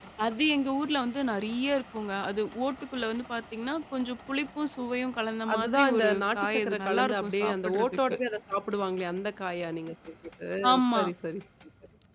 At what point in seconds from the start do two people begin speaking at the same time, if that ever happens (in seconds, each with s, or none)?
5.5 s